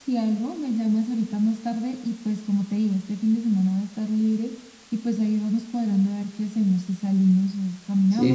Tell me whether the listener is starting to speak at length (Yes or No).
Yes